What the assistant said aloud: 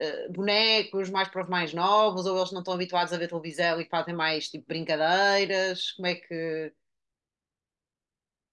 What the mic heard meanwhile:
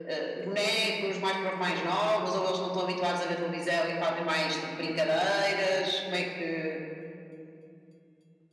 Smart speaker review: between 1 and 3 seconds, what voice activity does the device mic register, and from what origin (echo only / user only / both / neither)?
echo only